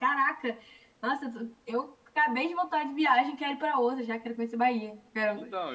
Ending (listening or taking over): taking over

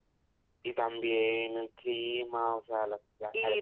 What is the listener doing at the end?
taking over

